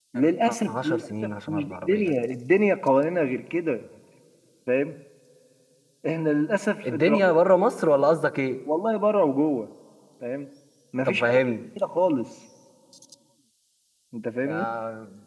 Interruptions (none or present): present